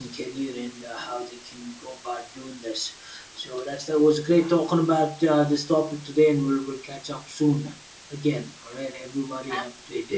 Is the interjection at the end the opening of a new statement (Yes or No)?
Yes